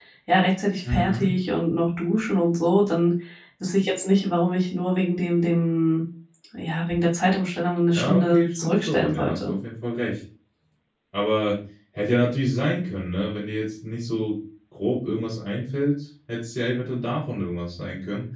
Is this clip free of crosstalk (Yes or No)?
No